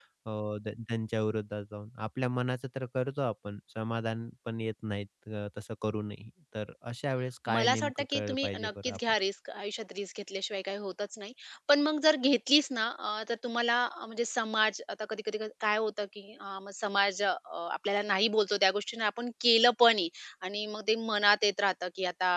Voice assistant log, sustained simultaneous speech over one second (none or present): present